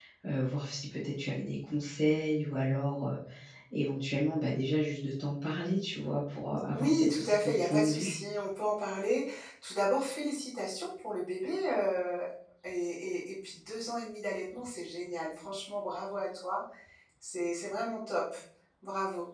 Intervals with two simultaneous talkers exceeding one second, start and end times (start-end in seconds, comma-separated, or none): 6.7-8.1